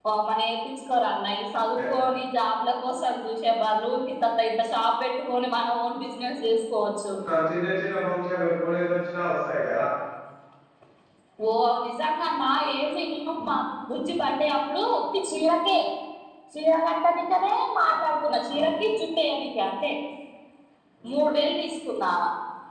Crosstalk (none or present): none